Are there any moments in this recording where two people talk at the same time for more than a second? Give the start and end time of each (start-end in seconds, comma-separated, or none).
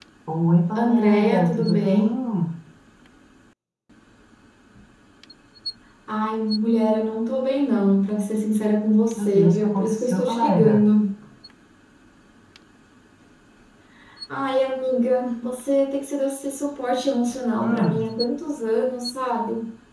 0.8-2.0, 9.1-10.8